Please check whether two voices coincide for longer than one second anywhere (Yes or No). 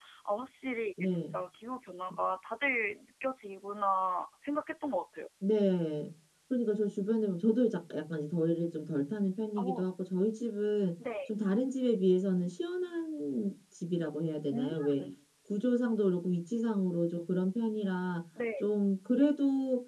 No